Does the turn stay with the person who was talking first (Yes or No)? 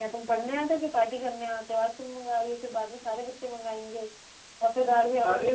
Yes